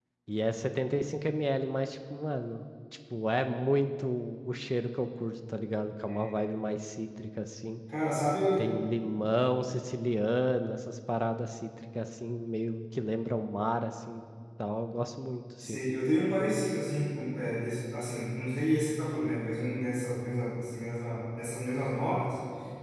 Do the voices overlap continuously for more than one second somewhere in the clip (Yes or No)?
No